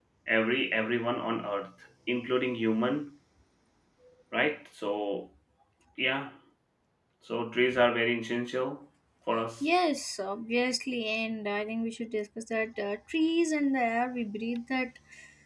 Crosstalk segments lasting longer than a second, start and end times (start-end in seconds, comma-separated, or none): none